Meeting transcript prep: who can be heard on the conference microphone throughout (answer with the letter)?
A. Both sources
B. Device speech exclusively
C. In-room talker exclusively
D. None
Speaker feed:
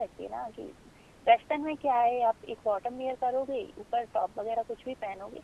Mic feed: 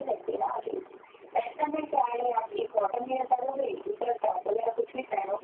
B